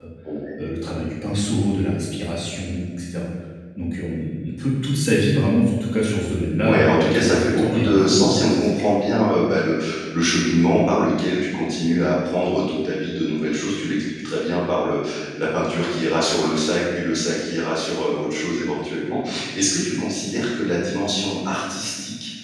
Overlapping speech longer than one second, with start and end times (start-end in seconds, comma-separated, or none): 6.6-8.9